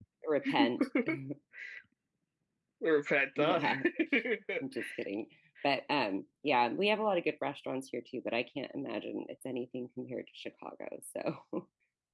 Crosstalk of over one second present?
No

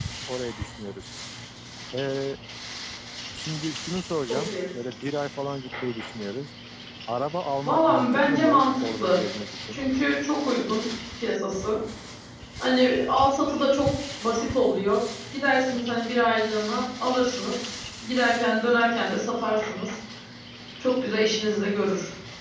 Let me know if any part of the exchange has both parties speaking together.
Yes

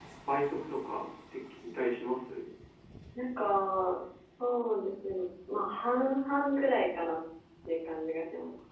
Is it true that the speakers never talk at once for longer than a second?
Yes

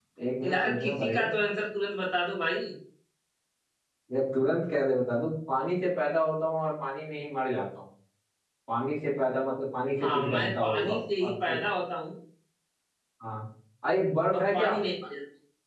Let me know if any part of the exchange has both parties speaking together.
Yes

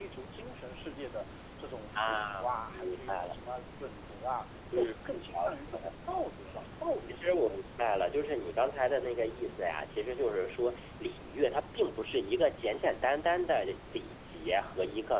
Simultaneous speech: Yes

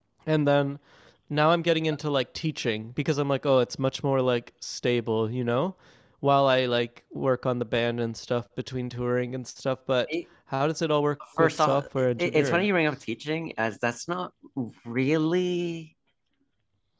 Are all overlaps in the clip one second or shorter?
No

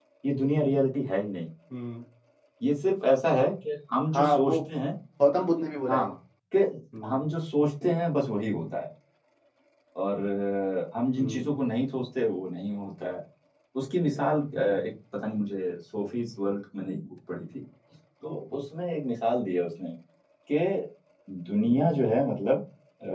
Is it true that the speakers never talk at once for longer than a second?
Yes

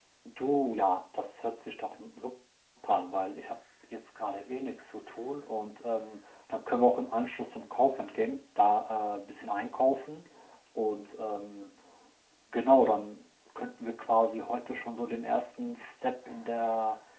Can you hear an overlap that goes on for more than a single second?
No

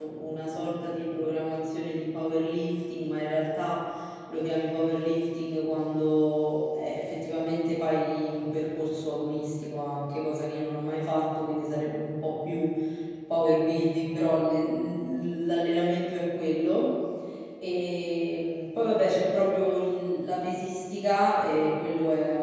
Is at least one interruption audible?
No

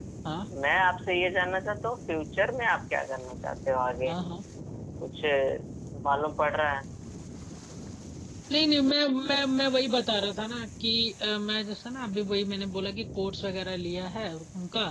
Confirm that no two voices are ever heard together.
Yes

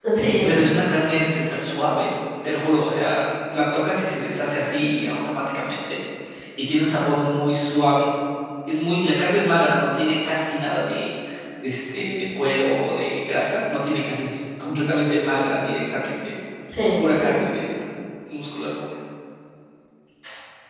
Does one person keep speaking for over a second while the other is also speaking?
No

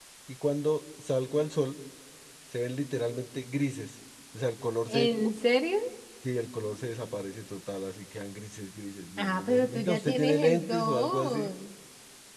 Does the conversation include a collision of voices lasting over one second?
Yes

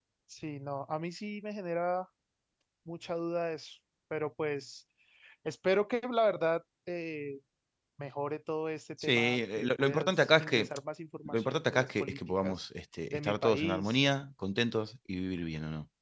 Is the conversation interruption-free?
No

